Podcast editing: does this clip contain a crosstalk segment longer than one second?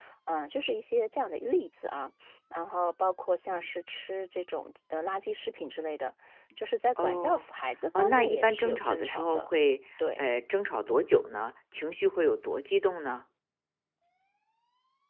Yes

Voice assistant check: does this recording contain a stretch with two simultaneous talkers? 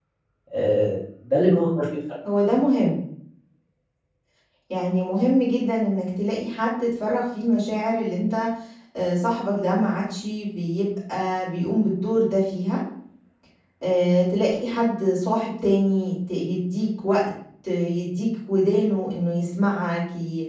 No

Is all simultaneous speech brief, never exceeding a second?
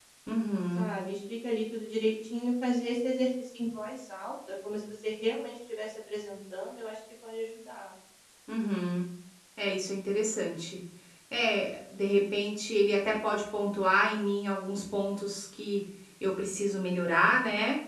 Yes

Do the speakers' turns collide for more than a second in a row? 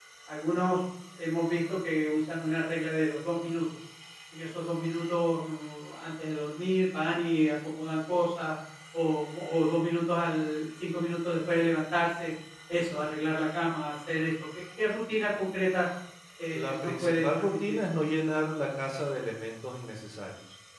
Yes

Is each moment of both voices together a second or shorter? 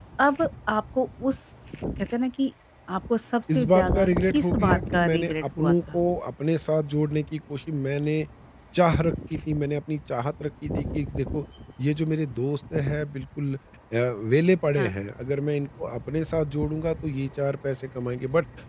No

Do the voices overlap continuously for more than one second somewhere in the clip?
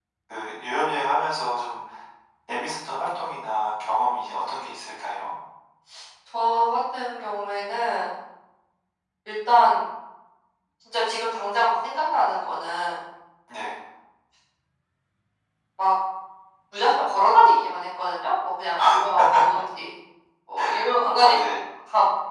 No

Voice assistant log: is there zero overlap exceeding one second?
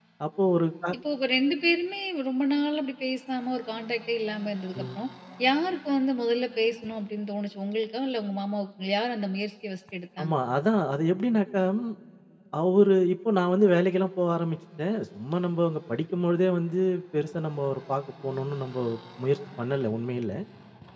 Yes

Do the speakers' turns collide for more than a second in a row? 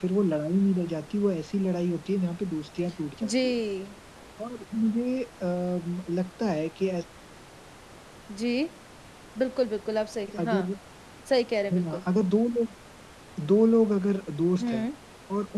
No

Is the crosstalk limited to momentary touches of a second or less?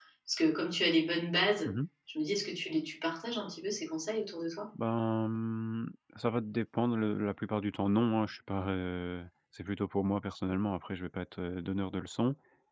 Yes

